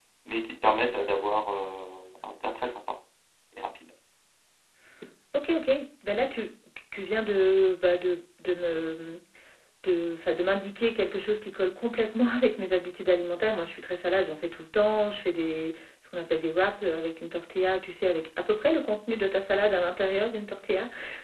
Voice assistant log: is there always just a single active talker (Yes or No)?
Yes